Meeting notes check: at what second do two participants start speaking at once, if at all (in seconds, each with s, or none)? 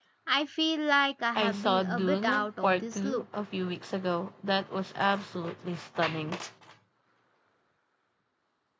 1.4 s